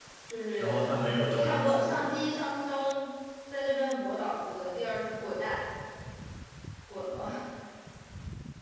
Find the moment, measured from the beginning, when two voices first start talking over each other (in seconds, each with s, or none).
0.6 s